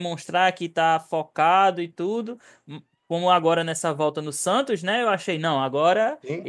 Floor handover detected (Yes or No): No